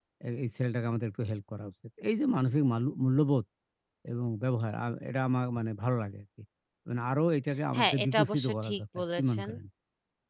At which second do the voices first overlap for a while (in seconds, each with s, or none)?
7.7 s